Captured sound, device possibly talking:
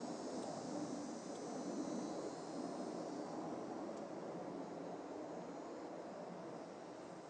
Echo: none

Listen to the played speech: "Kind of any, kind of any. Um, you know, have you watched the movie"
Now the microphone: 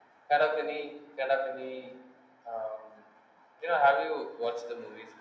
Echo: present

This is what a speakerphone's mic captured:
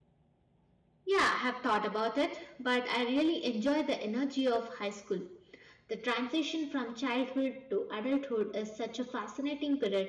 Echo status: none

